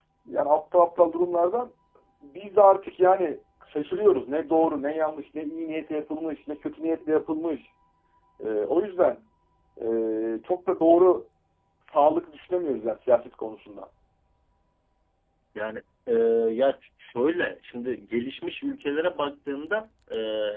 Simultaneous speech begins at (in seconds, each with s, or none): none